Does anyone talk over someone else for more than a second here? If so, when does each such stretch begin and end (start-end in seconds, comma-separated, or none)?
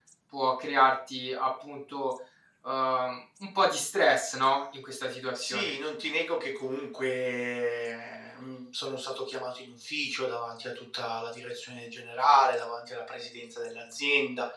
none